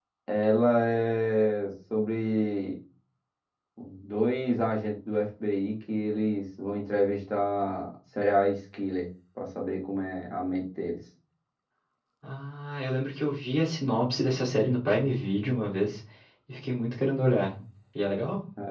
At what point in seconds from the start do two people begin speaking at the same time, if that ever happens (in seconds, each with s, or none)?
none